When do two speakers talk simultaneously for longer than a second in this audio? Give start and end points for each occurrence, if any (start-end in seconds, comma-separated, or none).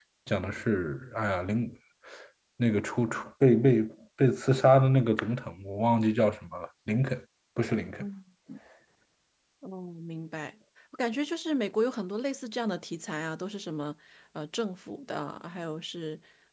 none